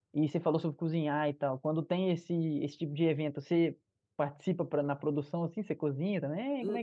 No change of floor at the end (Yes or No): No